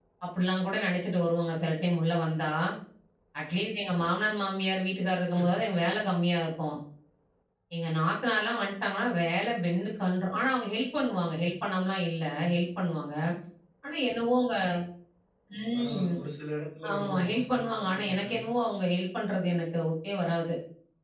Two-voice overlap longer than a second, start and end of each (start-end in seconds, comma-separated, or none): 16.9-18.4